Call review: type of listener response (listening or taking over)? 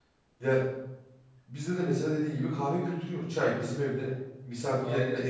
listening